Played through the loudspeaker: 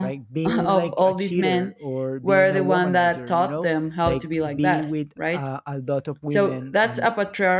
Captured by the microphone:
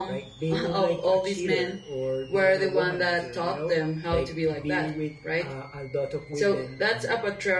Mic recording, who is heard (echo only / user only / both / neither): echo only